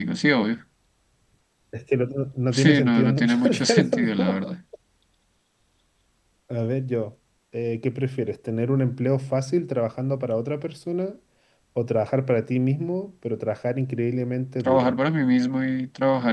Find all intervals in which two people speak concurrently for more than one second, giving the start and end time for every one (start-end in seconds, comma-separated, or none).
2.5-4.4